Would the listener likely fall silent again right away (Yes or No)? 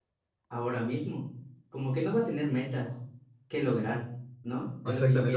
No